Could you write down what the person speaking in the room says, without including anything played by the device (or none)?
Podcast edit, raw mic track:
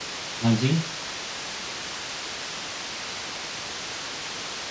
हाँ जी।